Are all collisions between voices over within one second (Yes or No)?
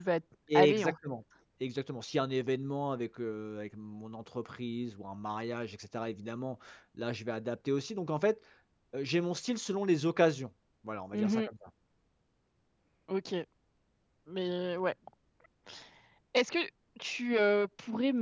Yes